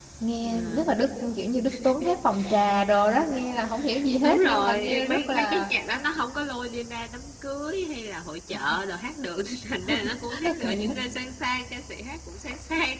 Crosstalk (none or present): present